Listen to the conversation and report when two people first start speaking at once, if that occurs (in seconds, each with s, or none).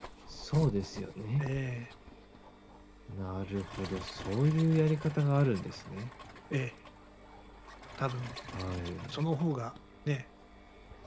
none